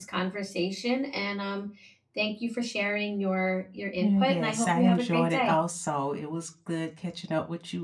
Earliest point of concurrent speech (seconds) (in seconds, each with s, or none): 4.0 s